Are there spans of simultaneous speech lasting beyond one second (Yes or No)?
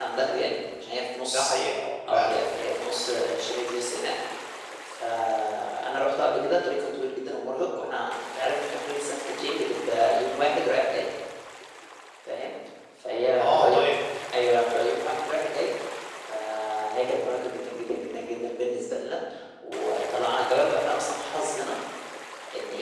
No